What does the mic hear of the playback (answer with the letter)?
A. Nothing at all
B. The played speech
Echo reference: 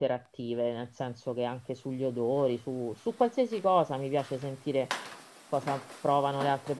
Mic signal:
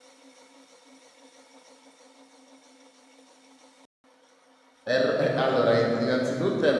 A